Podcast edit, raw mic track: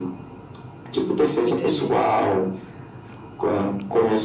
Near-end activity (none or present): present